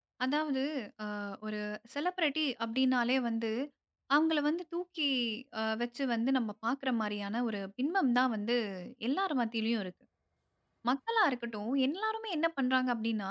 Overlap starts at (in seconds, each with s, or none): none